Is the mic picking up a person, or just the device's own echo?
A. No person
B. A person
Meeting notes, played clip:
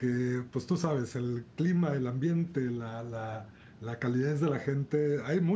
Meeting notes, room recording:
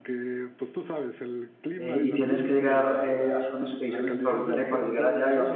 B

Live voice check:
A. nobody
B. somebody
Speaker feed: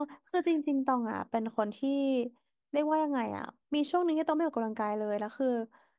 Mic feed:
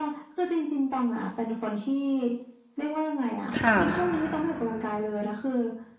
B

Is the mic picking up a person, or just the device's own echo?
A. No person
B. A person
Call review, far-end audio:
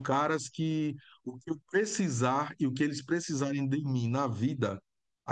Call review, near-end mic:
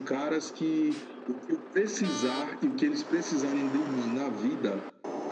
A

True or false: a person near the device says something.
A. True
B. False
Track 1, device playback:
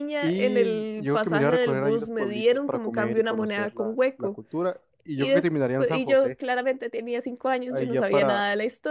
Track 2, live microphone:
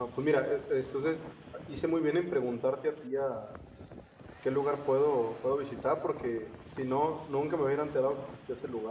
A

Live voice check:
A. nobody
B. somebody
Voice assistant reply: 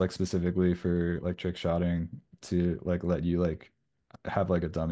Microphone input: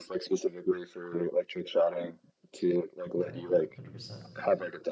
B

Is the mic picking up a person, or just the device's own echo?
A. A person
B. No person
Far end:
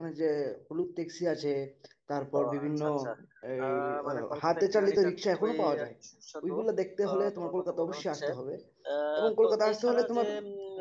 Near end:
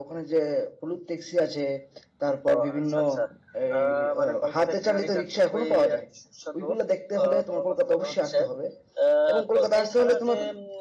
B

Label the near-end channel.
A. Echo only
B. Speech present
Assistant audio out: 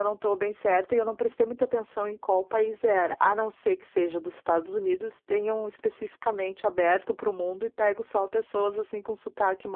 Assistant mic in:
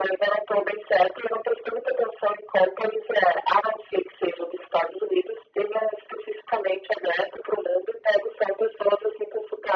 A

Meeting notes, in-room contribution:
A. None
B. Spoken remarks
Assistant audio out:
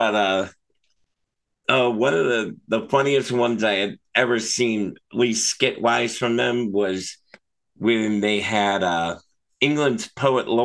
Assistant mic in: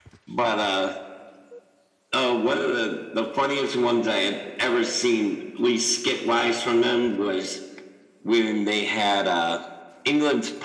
A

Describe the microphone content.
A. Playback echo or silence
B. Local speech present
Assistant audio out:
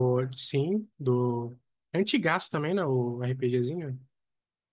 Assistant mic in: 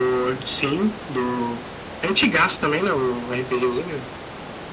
A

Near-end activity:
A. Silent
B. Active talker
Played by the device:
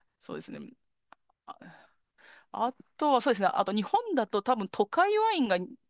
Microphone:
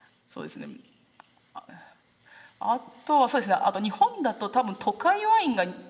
A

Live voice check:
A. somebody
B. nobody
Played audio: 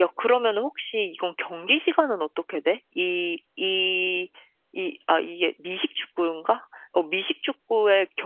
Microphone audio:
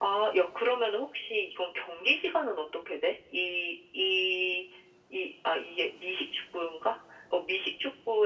B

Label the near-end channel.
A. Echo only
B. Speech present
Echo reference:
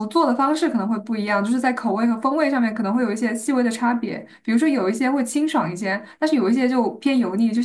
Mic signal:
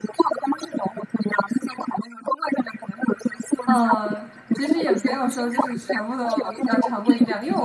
B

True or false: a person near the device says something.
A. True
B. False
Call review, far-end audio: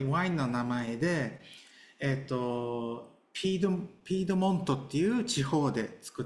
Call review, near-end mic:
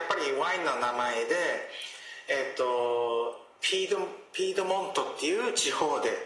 B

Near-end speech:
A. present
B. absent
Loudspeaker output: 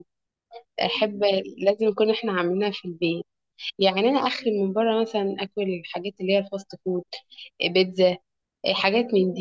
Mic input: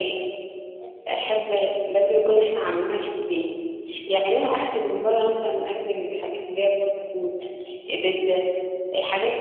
B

